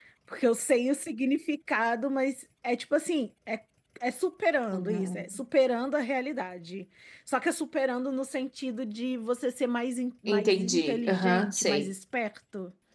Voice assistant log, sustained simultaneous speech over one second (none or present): present